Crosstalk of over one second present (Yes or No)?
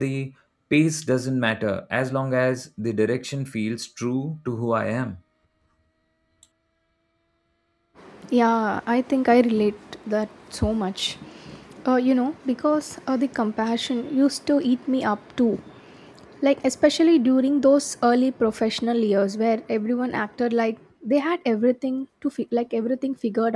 No